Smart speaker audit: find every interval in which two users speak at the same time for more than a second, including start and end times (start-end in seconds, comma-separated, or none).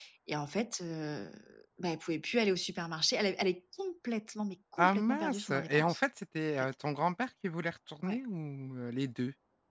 4.8-6.0